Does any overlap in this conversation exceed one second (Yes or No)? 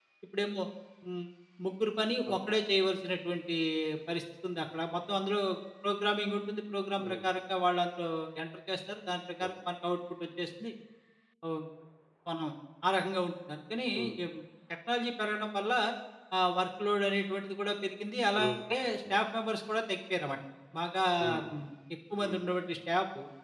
No